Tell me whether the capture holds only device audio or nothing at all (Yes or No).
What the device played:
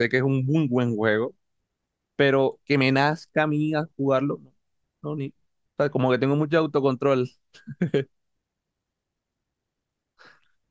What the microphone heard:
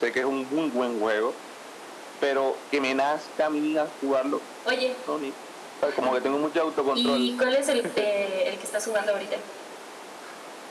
No